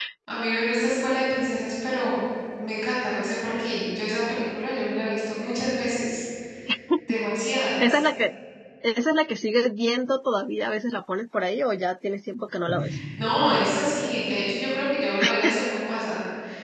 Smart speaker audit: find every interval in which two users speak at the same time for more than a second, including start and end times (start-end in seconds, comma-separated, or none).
none